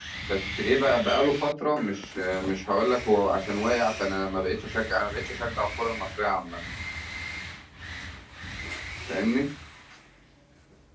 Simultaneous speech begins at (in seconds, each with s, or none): none